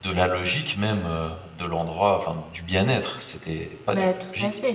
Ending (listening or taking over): taking over